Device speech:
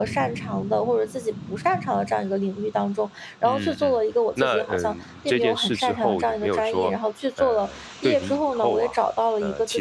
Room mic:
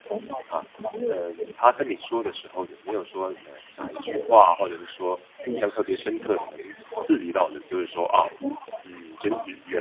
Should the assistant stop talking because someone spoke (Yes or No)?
Yes